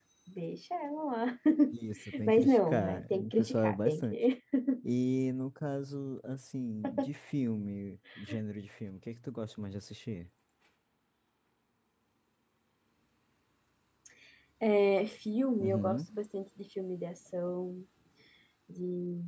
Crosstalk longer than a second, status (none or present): present